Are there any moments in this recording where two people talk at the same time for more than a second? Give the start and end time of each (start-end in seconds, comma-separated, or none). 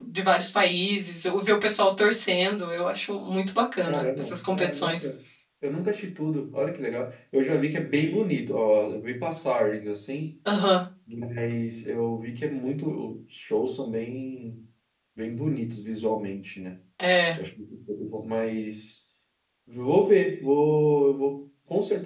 3.9-5.1